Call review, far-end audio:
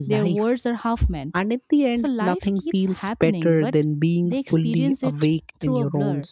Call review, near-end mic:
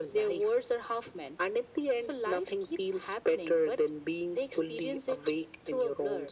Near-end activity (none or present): none